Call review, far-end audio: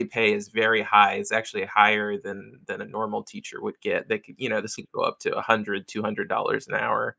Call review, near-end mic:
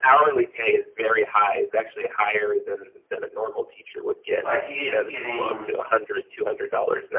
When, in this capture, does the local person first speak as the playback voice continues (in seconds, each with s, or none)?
4.4 s